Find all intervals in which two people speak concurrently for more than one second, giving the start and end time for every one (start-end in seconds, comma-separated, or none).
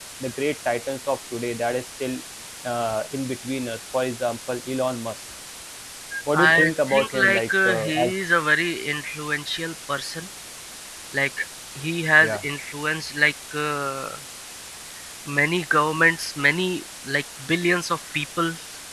6.4-8.1